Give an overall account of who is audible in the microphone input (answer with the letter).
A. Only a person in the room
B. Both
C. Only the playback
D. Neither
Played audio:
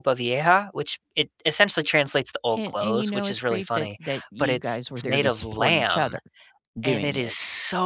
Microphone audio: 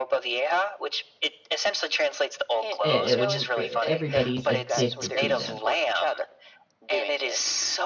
B